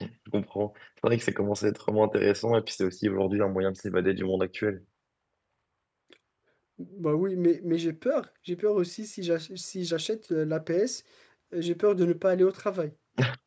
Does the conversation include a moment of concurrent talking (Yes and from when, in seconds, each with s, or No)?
No